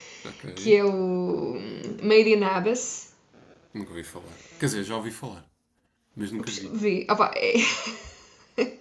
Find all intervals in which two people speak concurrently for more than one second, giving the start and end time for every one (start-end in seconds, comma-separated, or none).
none